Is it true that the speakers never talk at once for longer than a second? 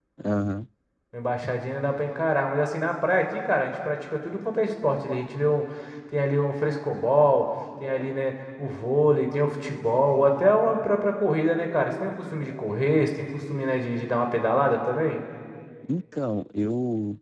Yes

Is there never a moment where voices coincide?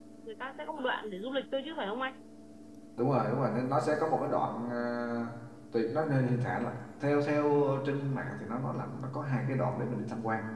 Yes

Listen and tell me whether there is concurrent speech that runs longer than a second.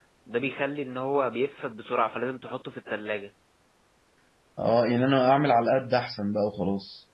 No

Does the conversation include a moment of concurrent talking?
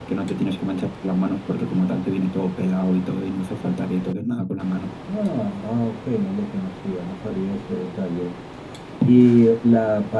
No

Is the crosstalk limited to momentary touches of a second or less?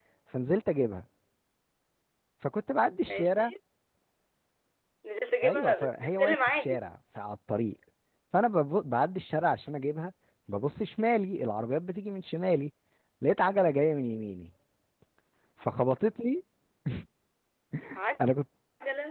No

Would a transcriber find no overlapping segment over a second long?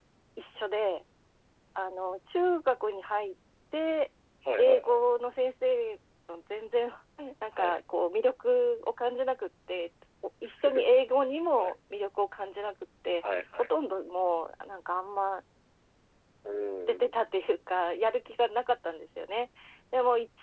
Yes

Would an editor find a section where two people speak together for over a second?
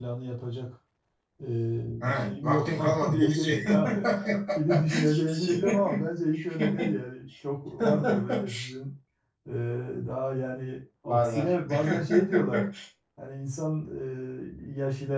Yes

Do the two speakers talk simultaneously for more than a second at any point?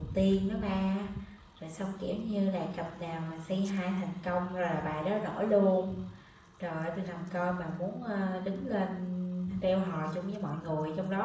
No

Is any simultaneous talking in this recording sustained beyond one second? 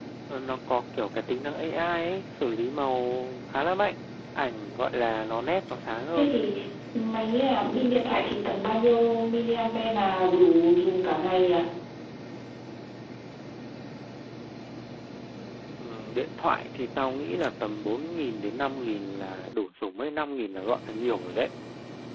No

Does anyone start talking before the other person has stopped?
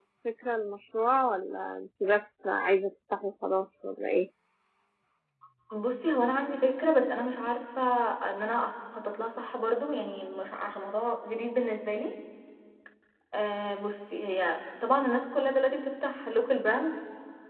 No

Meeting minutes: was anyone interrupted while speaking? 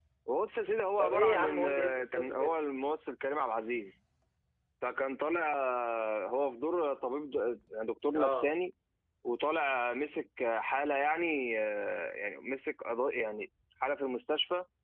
Yes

